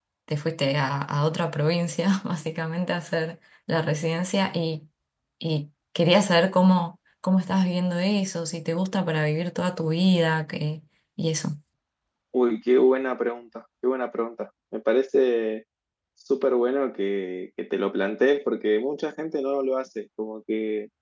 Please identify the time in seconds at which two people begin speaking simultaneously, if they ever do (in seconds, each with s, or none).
none